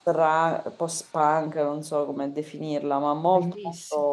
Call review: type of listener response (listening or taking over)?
listening